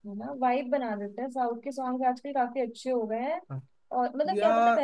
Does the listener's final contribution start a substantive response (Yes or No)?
No